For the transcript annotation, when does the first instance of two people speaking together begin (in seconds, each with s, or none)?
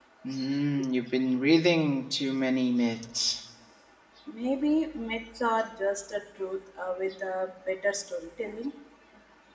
none